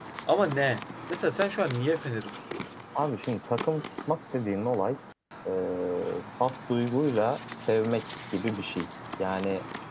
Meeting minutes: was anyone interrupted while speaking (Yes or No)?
No